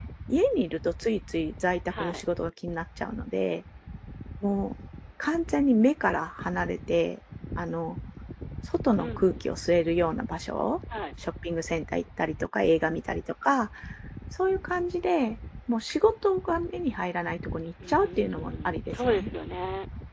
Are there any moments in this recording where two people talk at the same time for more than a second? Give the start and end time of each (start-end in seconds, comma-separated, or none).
17.9-19.3